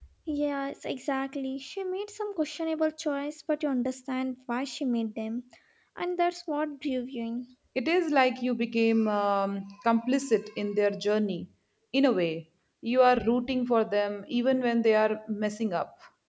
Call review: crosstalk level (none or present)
none